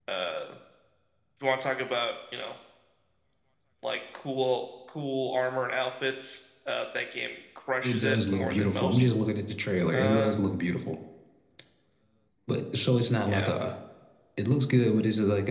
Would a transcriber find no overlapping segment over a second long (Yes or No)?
No